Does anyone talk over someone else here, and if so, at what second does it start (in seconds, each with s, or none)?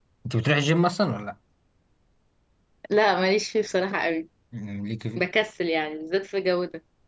none